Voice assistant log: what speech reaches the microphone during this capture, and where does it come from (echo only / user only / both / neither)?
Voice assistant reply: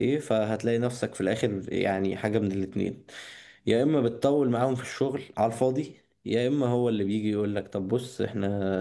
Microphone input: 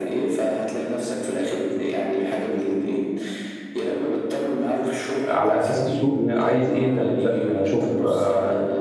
both